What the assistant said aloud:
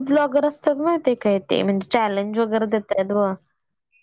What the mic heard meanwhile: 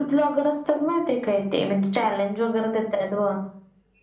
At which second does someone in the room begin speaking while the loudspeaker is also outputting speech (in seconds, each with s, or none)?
none